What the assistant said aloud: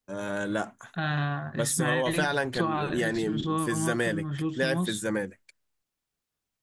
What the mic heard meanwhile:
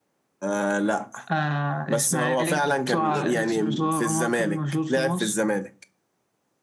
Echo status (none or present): present